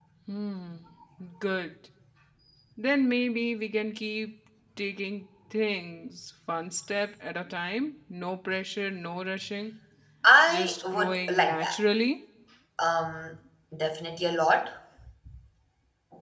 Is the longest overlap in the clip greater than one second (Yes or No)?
Yes